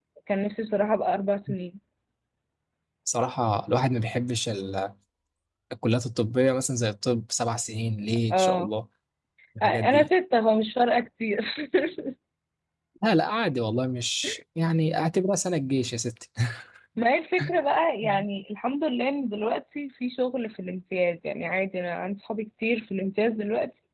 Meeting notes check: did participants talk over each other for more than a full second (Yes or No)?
No